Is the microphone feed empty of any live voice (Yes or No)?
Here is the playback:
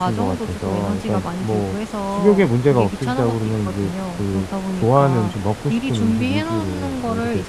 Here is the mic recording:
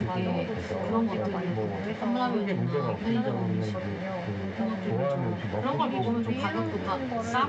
No